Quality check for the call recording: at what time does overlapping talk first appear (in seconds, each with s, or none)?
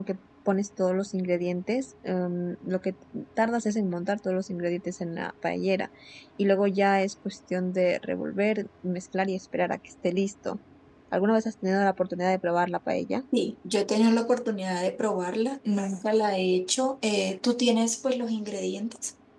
none